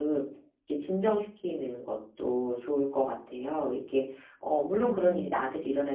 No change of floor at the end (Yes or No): Yes